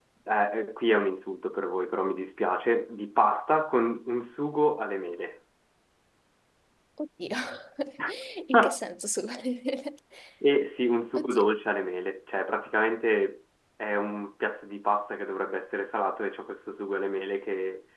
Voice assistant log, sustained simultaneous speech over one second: none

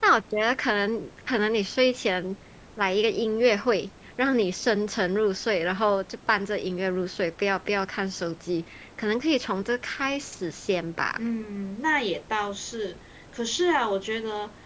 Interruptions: none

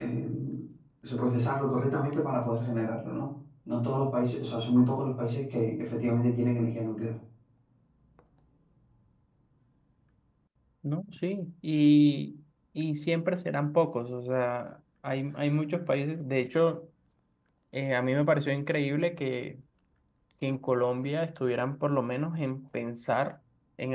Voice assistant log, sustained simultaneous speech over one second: none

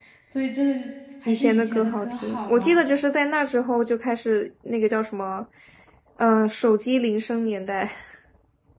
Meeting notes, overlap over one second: present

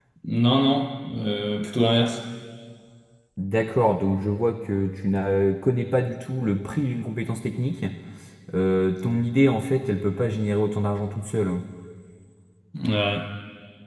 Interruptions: none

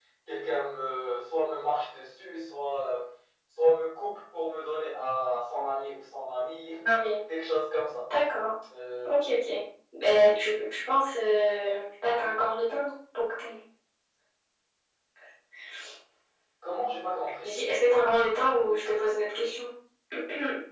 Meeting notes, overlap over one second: none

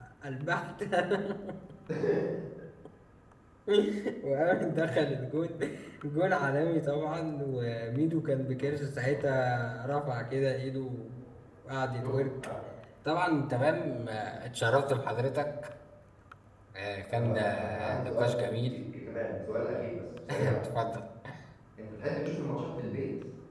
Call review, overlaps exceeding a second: present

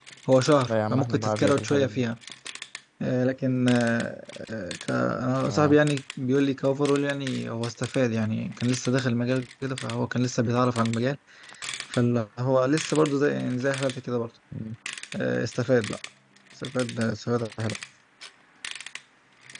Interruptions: present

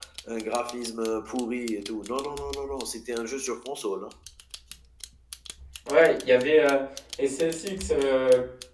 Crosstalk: none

